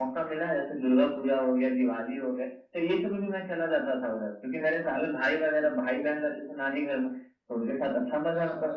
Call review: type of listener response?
listening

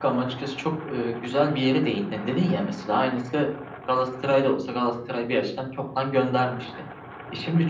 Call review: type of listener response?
listening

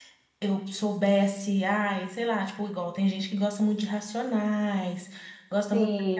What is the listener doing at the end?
listening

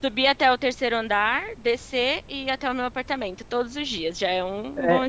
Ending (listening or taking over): taking over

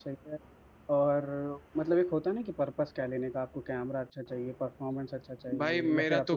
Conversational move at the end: taking over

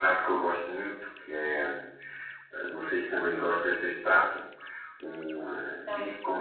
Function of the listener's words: listening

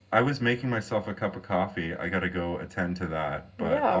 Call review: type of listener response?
listening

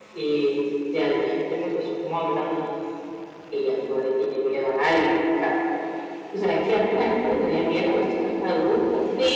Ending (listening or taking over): taking over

